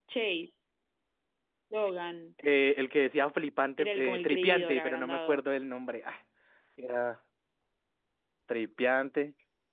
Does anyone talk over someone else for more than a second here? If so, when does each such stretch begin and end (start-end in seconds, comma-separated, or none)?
3.8-5.4